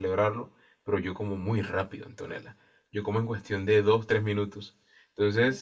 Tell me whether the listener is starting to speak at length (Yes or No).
No